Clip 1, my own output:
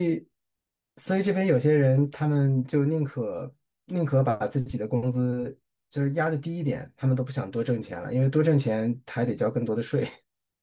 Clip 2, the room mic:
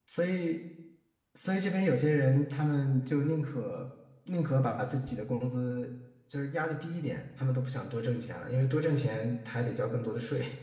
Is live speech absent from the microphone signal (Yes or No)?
Yes